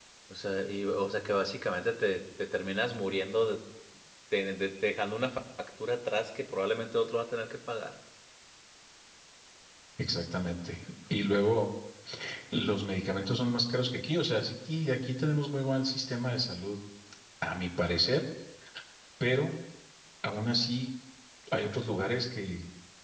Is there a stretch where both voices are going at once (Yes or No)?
No